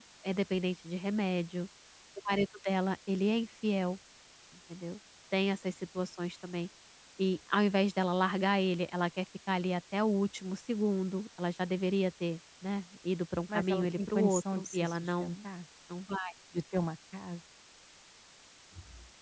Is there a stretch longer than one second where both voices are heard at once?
Yes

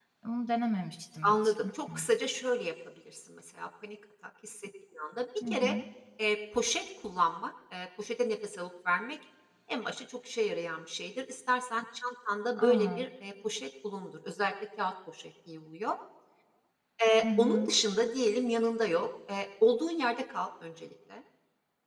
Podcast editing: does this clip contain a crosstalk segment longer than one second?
No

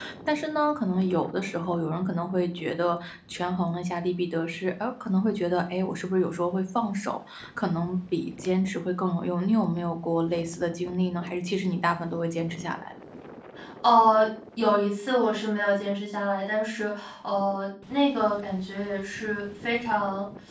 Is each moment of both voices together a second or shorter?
Yes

